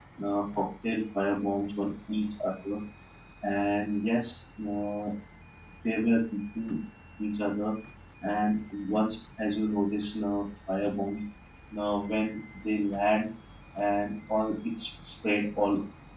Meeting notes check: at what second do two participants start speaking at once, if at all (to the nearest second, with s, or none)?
none